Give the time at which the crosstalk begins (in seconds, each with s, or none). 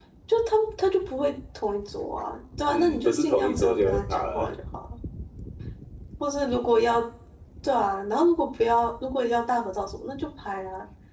2.7 s